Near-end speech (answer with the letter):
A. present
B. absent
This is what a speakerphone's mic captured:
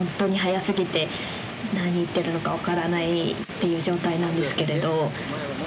A